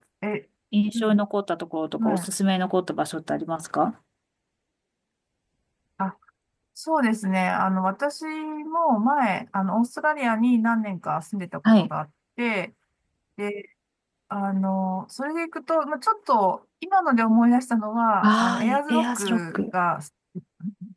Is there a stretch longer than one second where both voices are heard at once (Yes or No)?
Yes